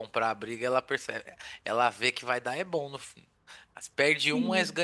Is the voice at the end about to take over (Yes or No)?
No